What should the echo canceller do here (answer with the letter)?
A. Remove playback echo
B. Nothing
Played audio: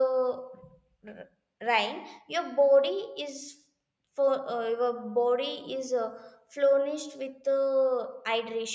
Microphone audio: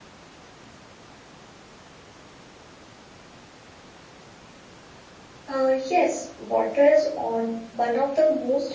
B